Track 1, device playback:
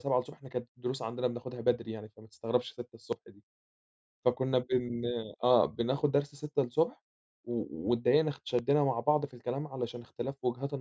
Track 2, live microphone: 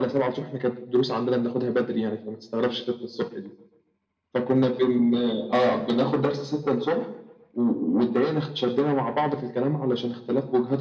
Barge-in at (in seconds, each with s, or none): none